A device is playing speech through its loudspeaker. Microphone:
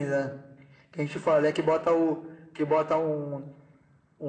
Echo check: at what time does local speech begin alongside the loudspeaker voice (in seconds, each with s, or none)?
none